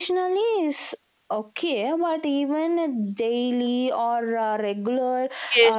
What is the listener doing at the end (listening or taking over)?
taking over